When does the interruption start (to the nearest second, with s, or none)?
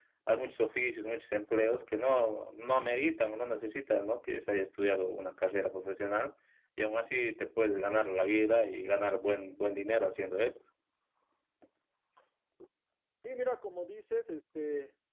none